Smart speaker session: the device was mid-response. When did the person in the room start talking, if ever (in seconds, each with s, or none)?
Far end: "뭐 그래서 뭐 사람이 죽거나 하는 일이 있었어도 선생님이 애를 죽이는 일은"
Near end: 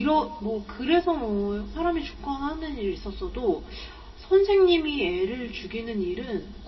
none